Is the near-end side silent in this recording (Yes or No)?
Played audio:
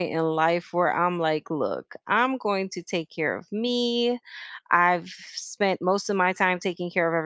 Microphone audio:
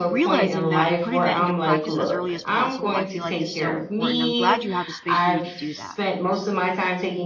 No